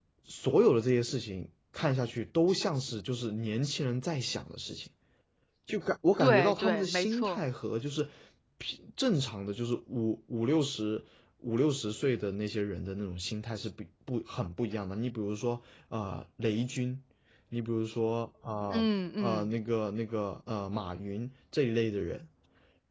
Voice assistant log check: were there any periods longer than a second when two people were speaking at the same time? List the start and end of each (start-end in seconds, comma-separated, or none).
6.2-7.4